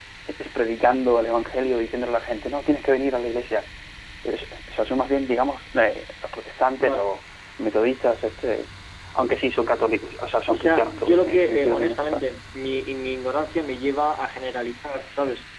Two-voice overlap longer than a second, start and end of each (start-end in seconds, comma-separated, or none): 10.5-12.2